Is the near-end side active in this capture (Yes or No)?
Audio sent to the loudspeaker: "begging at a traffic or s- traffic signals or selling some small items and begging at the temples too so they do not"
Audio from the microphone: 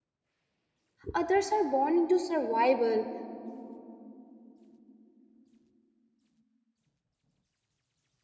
Yes